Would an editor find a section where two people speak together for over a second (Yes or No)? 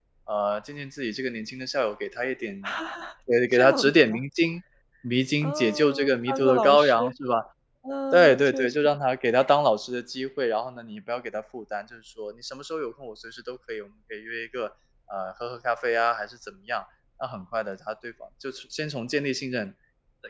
Yes